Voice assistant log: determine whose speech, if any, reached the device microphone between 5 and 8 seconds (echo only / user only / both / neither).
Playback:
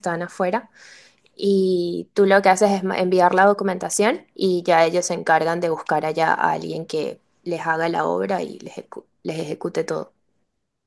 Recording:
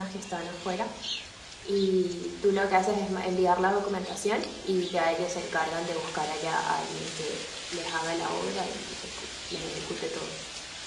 echo only